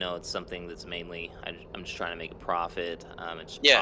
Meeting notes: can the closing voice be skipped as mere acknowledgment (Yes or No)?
Yes